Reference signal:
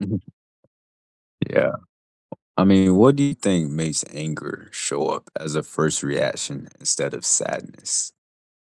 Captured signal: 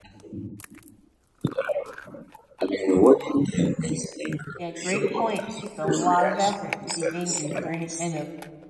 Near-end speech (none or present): present